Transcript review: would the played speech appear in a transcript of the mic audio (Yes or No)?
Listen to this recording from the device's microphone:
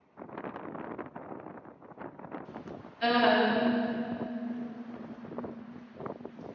No